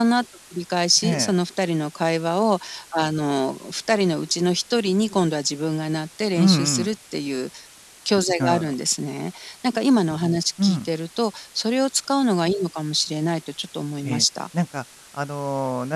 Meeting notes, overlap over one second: none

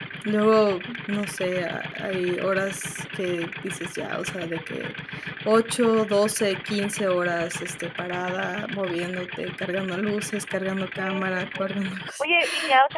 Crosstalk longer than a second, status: present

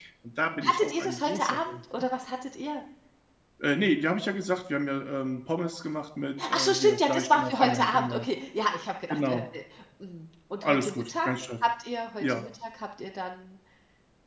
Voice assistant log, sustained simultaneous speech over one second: present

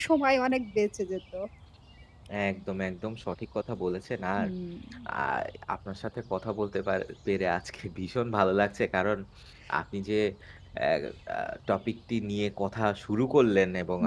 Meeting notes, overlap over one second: none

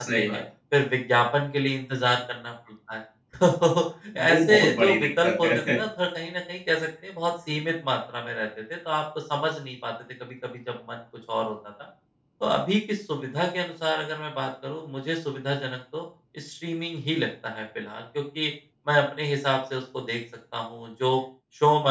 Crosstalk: present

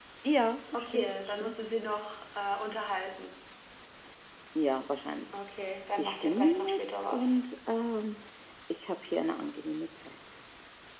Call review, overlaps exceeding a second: present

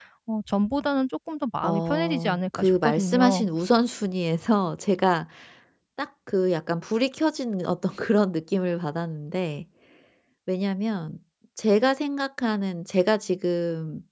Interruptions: present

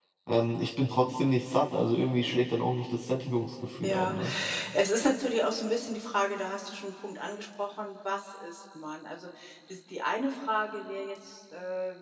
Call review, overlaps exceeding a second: none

